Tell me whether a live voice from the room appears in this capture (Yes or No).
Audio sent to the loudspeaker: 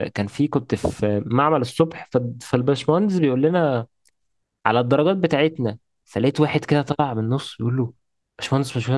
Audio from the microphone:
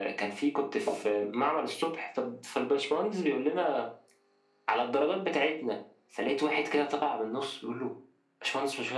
No